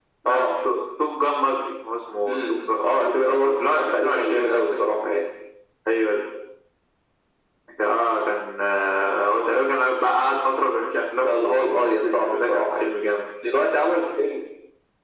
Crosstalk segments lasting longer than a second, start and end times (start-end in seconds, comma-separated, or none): 2.3-4.7, 11.2-12.9